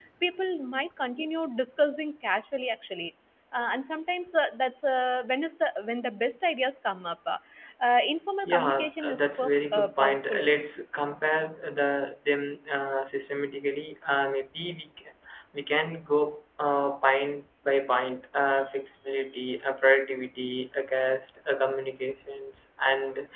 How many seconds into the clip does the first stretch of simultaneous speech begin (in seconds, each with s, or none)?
8.4 s